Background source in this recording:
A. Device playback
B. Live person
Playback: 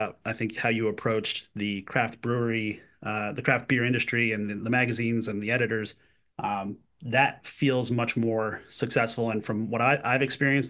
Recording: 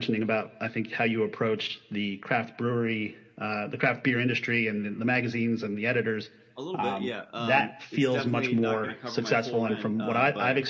B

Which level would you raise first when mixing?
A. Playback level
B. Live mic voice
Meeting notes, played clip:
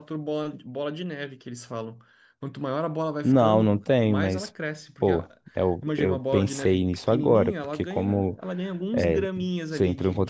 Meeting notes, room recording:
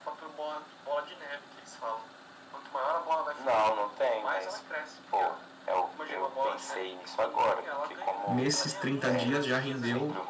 A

